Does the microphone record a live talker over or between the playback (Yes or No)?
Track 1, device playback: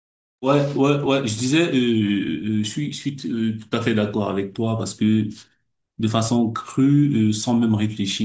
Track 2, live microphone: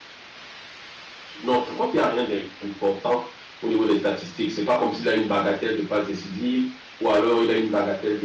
Yes